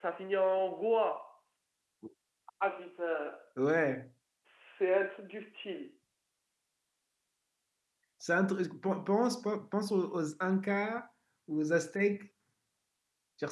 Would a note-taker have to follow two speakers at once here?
No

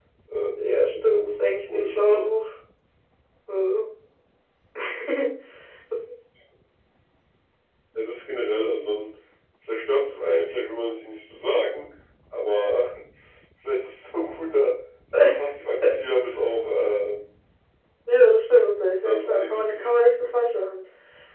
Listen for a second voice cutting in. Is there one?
Yes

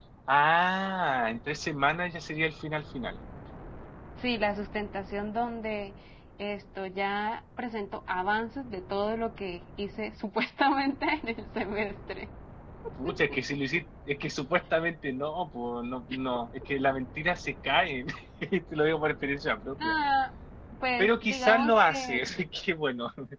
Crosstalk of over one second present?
Yes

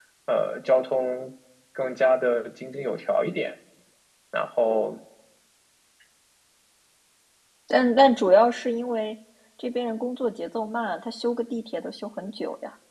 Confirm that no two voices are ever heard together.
Yes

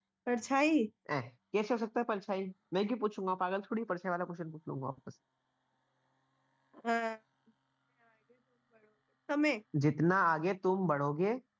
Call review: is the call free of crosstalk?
Yes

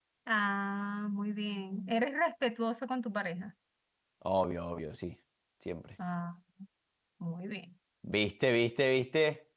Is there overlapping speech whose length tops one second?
No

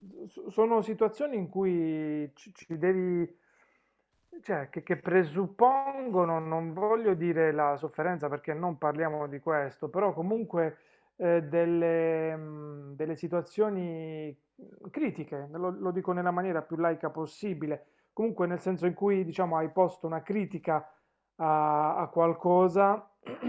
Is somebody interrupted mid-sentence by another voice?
No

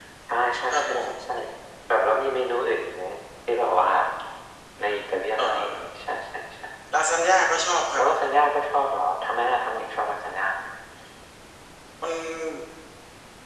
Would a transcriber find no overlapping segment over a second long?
Yes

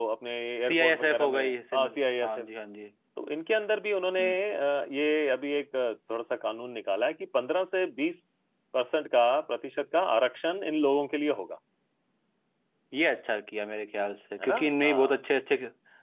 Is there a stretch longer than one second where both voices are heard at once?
Yes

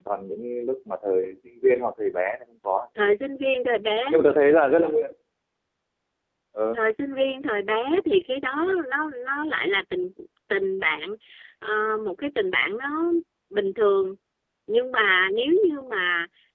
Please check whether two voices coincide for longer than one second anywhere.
No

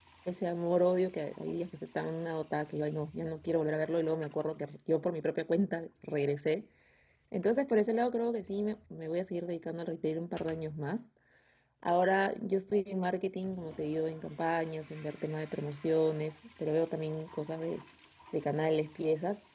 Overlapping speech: No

